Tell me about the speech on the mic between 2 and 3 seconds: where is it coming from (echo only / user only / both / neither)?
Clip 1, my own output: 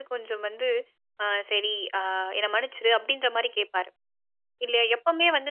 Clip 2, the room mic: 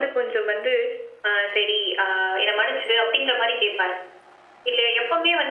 echo only